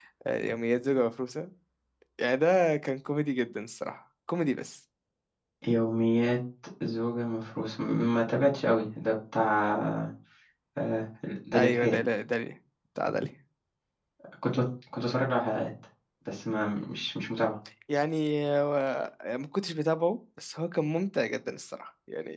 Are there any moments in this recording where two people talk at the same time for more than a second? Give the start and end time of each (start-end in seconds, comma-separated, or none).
none